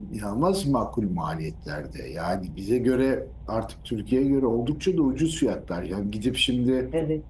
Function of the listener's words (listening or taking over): listening